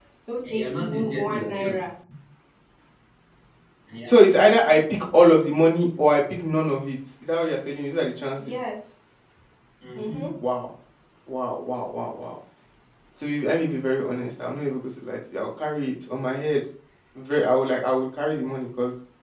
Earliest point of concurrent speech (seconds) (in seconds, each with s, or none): 0.5 s